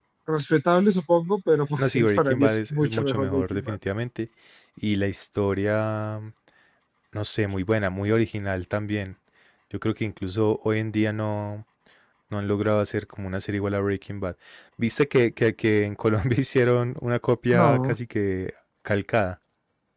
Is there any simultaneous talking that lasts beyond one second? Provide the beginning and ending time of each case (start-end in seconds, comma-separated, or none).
1.8-3.8